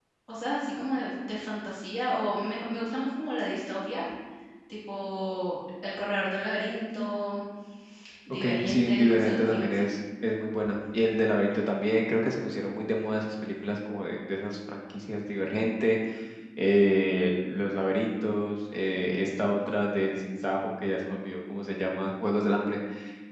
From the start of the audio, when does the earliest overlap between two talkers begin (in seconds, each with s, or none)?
8.4 s